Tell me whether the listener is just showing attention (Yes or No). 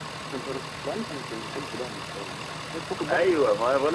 No